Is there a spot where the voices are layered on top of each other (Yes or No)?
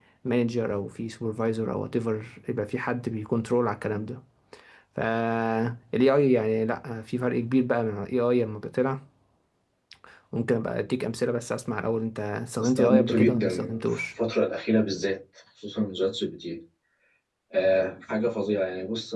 Yes